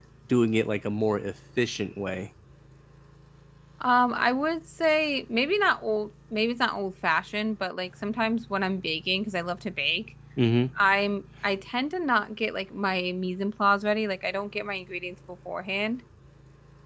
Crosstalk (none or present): none